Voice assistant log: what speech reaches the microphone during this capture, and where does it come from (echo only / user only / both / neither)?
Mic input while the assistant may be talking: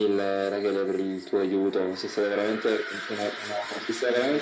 echo only